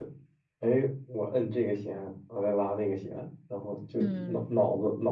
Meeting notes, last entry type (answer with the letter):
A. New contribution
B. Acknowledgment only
B